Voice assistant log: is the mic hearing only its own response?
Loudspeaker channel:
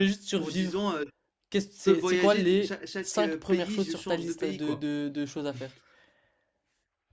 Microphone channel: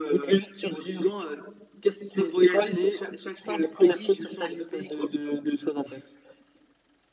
Yes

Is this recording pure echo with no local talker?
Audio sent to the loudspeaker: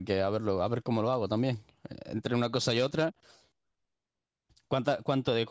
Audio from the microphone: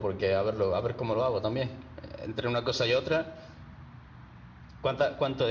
Yes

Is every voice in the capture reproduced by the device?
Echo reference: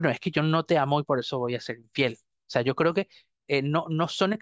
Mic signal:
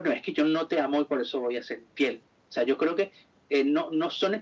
Yes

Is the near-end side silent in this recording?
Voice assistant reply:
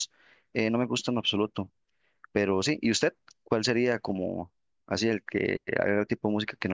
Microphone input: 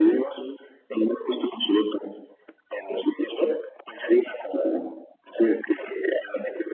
Yes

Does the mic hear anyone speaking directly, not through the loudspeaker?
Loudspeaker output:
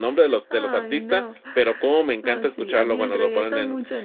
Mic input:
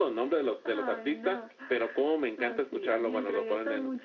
No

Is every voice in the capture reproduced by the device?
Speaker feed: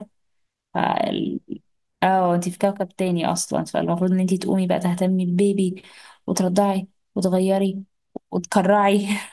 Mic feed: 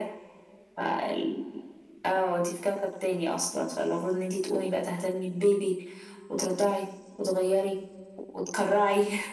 Yes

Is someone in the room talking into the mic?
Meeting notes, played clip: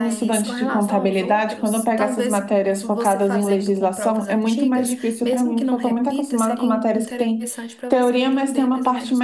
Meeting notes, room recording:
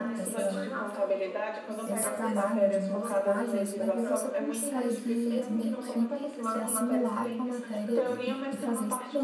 Yes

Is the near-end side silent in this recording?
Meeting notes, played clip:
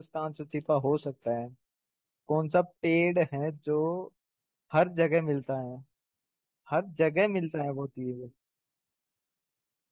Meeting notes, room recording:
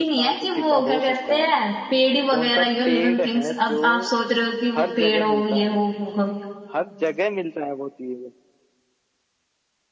No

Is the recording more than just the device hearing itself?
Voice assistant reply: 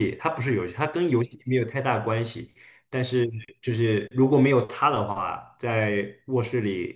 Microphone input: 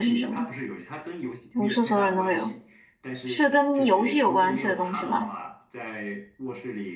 Yes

